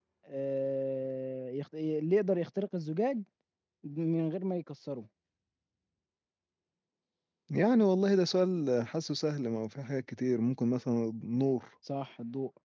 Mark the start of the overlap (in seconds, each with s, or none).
none